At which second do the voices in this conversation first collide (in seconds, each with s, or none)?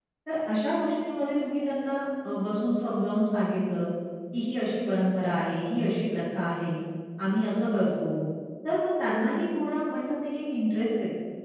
none